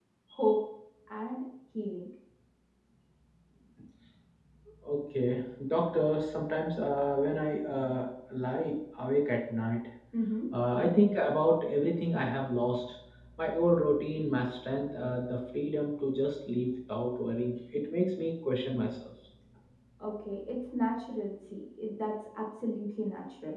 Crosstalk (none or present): none